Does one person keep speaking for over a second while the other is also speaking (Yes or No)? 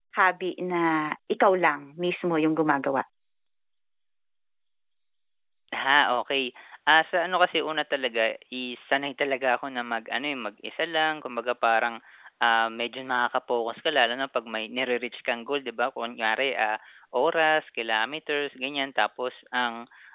No